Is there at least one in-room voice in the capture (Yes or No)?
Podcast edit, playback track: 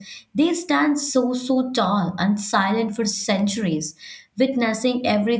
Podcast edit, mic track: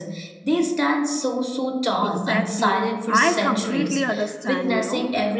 Yes